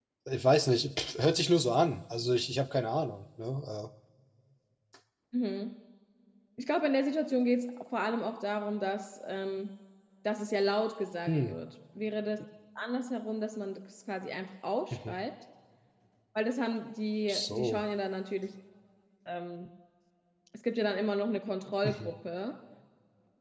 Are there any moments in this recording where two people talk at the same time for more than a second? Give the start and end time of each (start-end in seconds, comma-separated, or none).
none